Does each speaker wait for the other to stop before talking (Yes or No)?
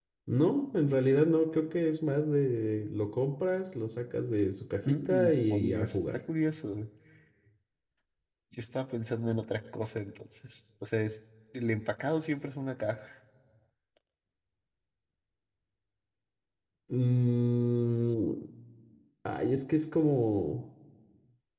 No